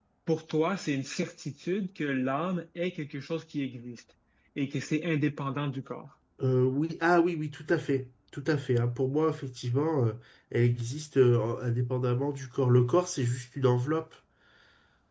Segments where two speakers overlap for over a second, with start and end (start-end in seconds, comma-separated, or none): none